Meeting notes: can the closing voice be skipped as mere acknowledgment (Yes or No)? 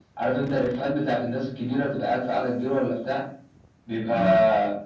Yes